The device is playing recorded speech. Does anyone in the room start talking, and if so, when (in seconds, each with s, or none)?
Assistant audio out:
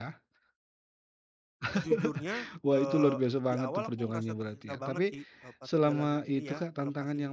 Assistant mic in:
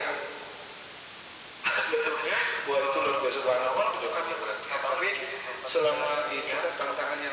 none